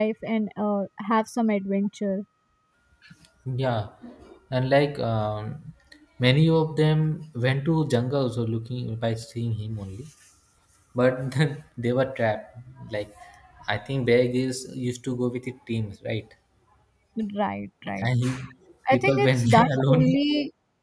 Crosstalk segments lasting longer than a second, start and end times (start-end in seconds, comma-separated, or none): 18.9-20.2